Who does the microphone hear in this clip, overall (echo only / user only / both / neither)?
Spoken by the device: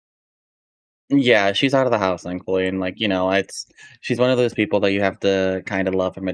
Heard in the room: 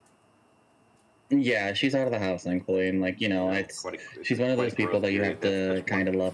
both